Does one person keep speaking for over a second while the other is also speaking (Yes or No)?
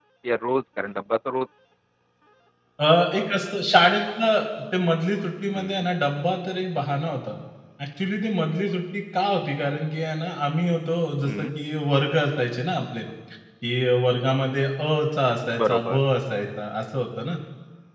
No